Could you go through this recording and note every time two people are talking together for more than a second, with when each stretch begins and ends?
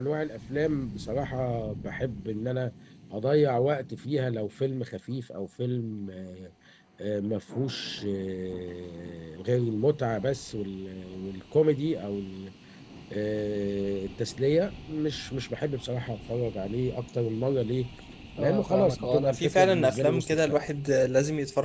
18.4-20.6

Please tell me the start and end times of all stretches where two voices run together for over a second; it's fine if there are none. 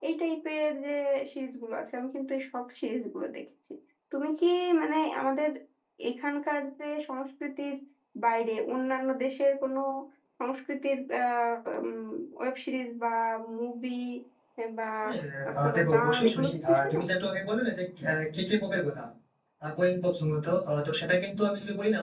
15.6-17.0

